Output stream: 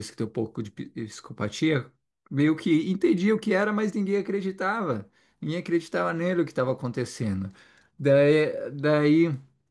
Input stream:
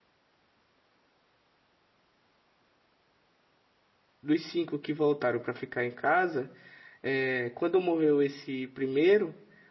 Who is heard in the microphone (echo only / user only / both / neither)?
user only